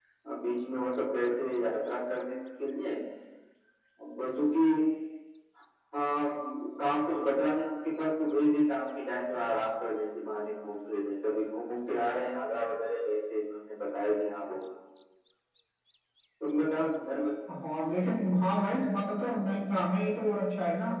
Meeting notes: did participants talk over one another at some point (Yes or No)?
No